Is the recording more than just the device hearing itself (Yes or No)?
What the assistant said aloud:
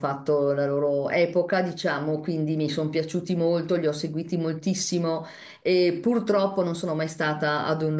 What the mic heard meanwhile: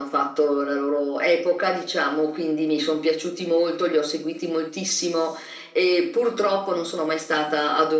No